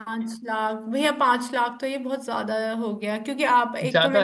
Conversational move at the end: listening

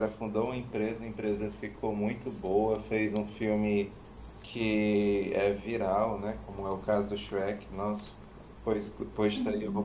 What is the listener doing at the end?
listening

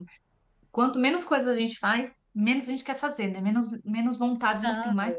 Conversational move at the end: listening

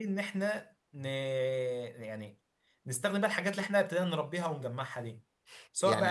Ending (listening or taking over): taking over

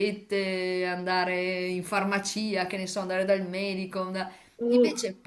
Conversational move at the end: listening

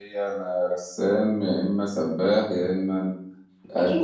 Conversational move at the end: taking over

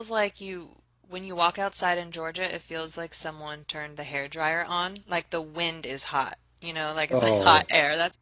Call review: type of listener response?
listening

